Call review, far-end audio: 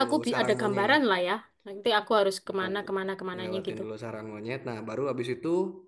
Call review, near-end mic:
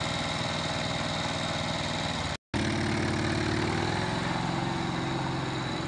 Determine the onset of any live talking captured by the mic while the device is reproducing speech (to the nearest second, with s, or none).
none